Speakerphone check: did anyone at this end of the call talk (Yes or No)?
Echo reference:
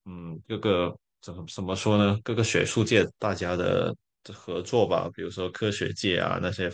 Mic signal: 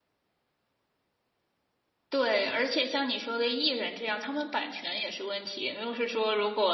Yes